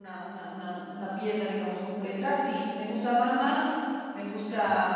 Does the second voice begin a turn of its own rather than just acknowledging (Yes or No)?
No